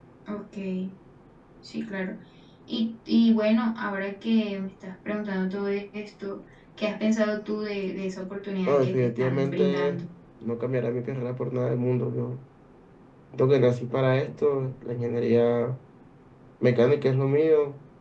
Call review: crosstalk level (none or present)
present